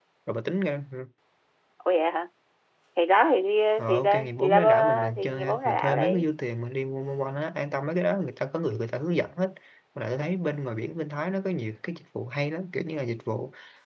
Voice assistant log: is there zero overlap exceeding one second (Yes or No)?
No